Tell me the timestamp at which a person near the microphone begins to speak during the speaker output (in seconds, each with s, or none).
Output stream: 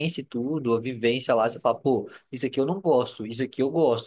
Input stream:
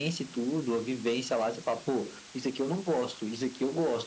none